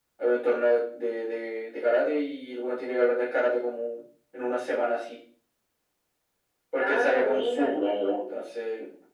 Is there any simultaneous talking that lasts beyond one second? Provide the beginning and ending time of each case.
6.8-8.0

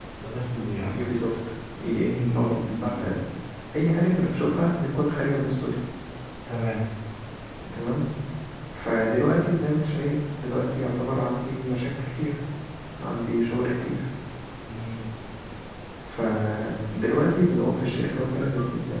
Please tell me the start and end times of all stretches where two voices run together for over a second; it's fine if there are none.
1.9-3.2

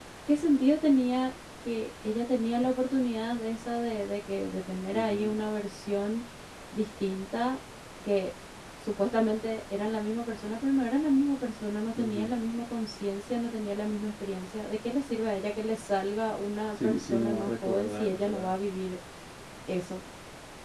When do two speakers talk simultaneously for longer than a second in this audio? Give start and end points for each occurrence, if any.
16.8-18.6

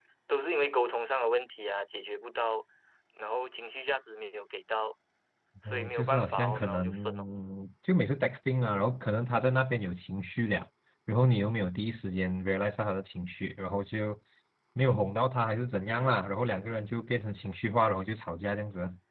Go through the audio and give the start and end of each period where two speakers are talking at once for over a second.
5.6-7.2

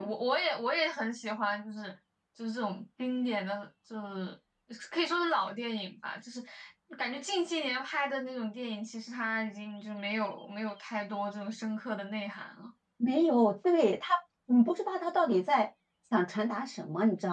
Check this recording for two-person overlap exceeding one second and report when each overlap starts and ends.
none

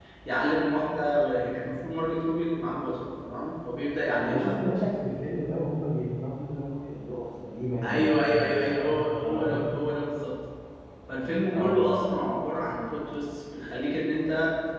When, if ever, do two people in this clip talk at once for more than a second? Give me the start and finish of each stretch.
7.8-9.5

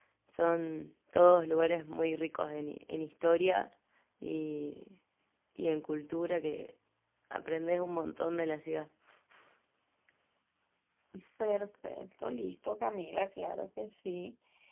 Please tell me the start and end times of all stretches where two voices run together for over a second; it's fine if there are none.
none

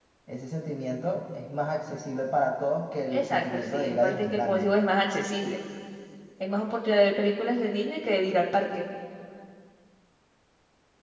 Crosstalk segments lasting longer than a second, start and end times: 3.1-4.7

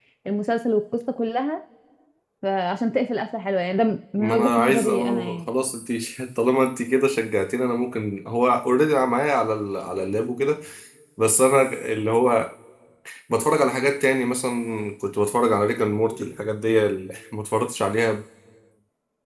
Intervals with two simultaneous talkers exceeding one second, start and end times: 4.2-5.5

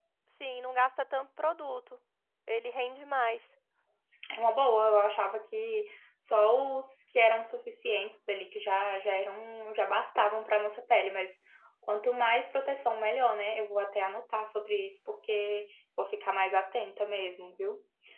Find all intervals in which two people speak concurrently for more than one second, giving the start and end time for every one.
none

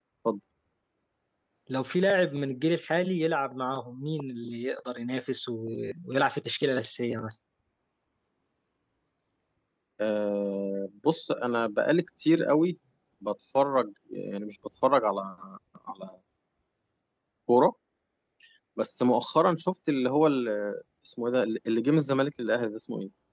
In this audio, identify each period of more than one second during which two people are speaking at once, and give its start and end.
none

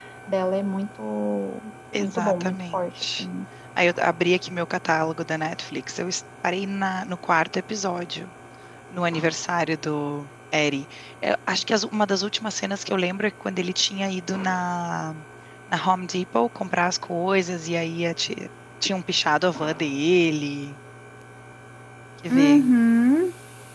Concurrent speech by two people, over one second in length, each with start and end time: 2.0-3.2

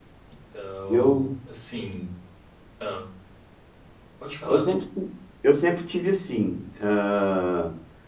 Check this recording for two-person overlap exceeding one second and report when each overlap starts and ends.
none

